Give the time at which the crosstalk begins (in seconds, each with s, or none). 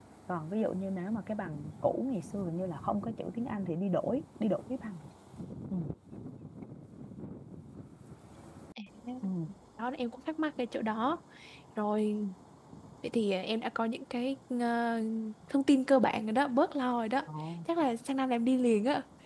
none